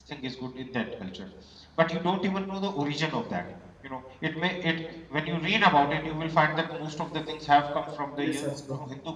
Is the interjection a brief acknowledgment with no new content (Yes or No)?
Yes